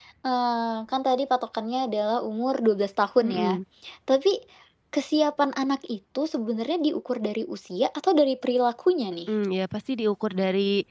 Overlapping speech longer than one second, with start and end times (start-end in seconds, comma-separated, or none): none